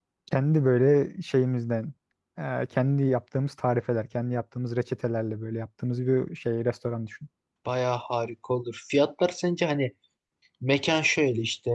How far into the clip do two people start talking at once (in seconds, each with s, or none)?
none